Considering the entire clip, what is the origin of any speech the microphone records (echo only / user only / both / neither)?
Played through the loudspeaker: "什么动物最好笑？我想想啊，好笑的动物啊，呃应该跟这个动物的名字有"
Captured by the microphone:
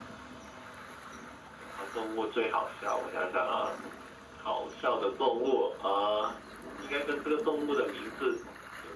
echo only